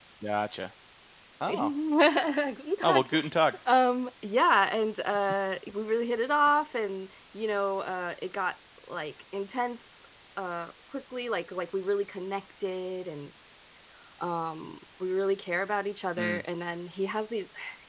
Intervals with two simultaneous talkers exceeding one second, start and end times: none

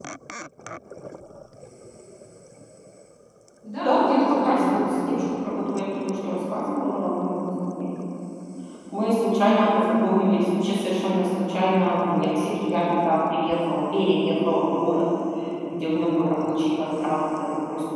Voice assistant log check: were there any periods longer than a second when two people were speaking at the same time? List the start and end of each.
3.8-5.2

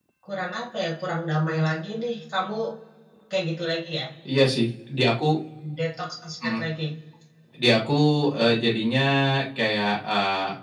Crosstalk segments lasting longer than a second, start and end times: none

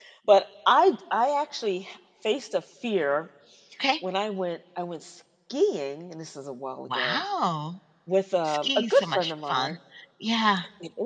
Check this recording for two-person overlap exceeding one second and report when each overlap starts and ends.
8.4-9.7

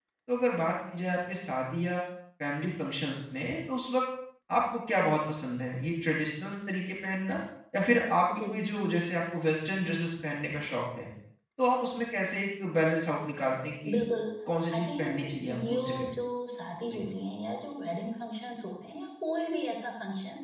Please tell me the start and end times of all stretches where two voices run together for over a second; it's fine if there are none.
14.8-16.1

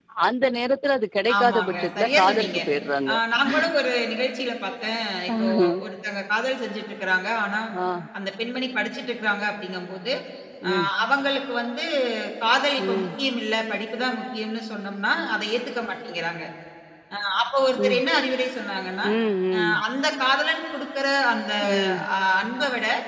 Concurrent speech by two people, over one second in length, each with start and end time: 1.4-2.6

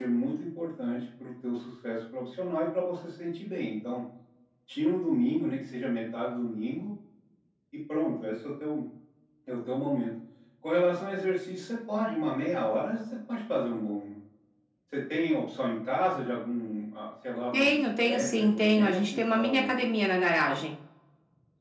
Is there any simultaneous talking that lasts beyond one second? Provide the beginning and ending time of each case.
17.5-19.8

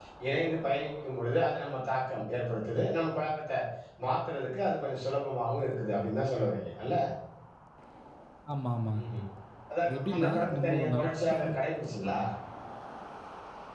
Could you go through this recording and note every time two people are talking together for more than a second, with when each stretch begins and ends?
9.9-11.5

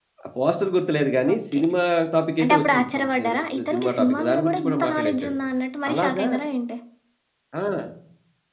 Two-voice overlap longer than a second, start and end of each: 2.4-5.3

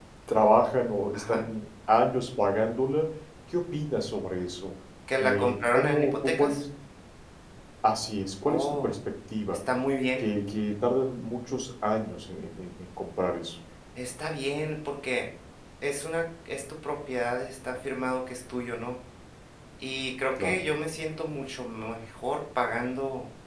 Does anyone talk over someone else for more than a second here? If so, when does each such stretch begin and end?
5.2-6.6

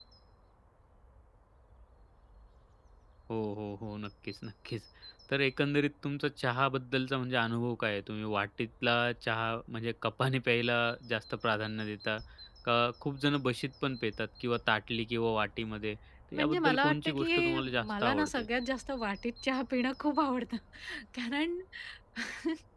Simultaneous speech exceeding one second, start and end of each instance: 16.4-18.4

